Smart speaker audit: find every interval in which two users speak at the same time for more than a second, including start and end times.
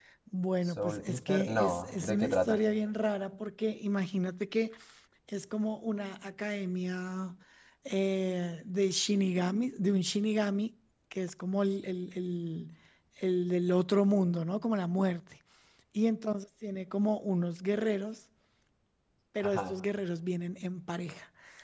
0.7-2.6

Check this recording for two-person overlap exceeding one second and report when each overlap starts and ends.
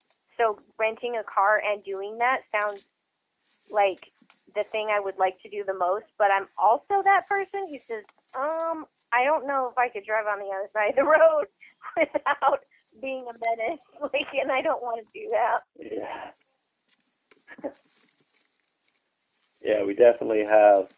none

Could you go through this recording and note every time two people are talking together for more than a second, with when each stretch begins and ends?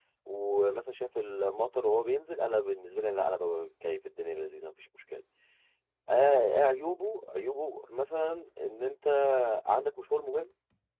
none

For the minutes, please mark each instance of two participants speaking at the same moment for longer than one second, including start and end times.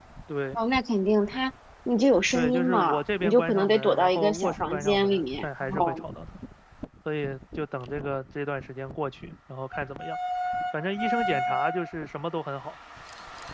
2.3-6.0

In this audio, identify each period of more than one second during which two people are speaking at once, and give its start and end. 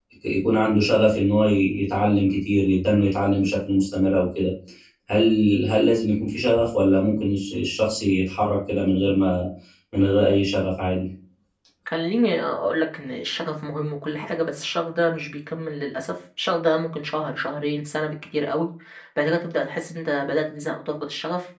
none

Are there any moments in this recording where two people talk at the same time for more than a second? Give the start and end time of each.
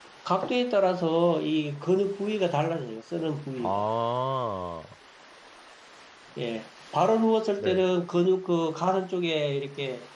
none

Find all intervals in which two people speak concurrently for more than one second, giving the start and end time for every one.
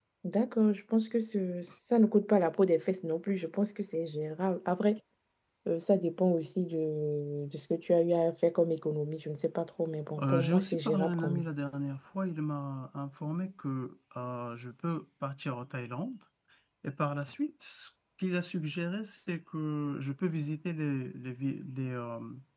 10.2-11.4

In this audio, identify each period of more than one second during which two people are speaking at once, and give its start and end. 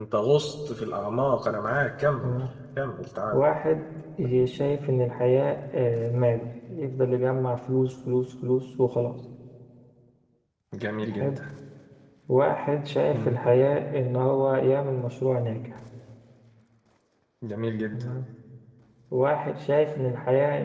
none

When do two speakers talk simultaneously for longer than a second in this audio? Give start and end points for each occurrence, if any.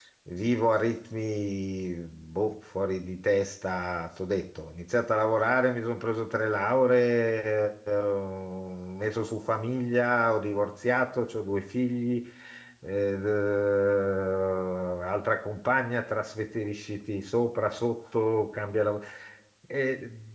none

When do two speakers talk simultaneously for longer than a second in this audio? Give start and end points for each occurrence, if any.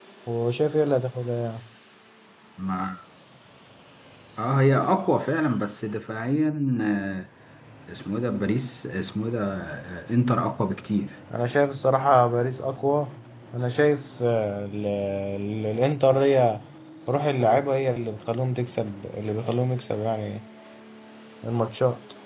none

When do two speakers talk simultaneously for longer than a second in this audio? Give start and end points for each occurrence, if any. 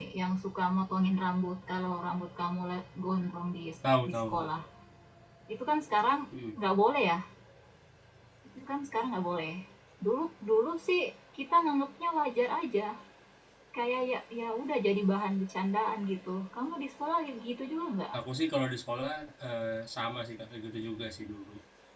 none

